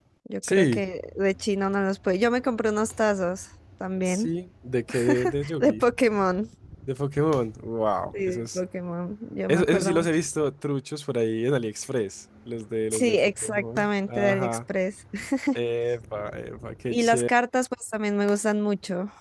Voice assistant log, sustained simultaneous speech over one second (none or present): present